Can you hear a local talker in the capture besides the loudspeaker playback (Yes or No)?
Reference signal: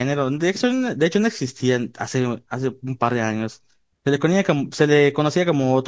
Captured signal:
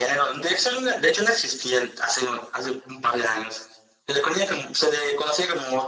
No